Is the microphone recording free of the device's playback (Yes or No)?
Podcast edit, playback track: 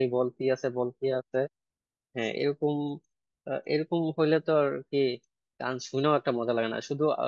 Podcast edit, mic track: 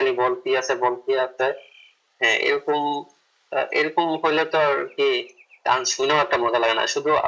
No